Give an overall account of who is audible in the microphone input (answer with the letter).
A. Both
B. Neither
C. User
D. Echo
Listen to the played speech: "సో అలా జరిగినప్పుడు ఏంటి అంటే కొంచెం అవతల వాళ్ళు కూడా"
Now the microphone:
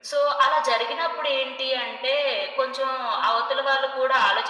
D